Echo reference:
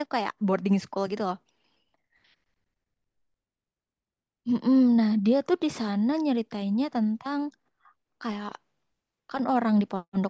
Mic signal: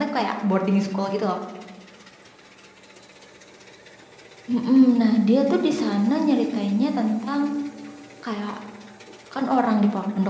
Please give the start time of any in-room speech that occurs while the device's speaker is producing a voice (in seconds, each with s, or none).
none